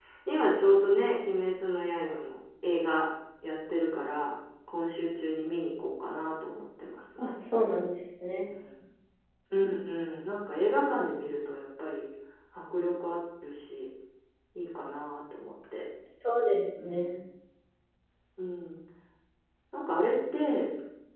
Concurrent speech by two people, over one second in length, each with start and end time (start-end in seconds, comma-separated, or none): none